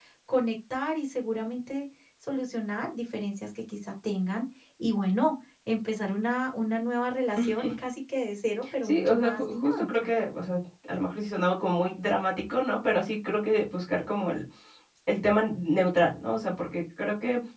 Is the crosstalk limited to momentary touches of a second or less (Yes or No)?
No